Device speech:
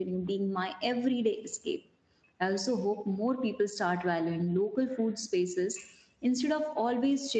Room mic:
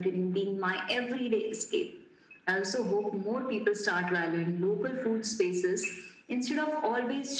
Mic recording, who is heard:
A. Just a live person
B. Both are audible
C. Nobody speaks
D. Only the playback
D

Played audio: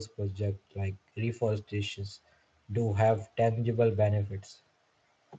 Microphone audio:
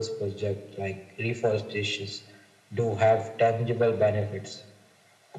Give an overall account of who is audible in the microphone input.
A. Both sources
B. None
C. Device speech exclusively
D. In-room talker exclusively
C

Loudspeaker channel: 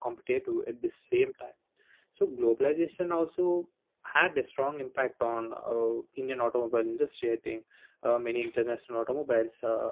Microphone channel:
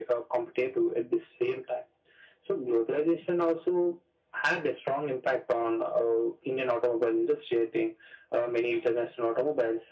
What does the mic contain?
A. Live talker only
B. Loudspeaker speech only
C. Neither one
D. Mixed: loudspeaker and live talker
B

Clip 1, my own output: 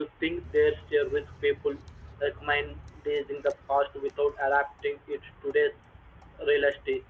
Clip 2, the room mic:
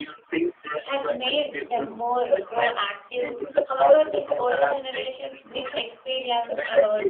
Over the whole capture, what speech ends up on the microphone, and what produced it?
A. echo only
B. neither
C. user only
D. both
D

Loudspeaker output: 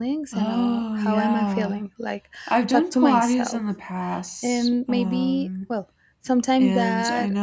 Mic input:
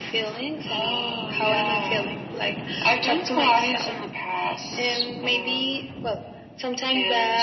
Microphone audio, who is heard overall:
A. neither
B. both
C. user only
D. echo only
D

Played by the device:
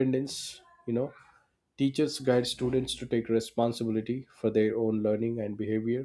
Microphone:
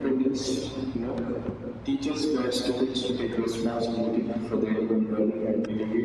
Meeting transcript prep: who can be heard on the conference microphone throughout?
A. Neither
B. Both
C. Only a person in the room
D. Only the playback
D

